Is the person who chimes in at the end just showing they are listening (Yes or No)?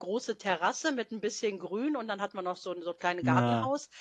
Yes